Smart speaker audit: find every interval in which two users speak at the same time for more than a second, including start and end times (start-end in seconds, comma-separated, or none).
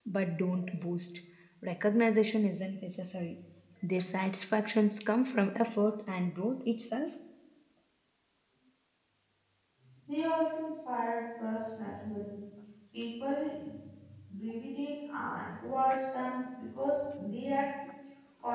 none